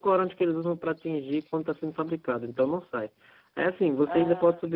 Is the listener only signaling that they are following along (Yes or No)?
Yes